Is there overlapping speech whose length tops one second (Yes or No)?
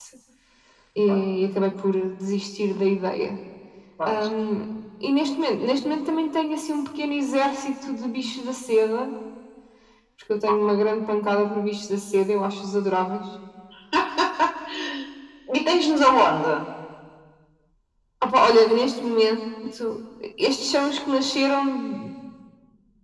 No